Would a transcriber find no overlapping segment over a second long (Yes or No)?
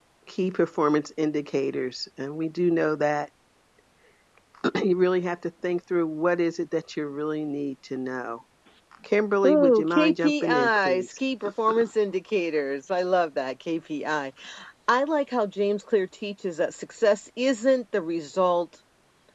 No